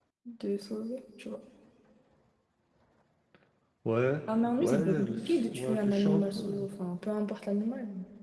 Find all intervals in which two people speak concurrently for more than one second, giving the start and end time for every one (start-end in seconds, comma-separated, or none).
4.6-6.6